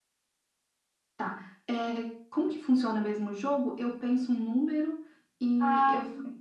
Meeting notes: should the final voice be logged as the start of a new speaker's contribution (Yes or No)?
Yes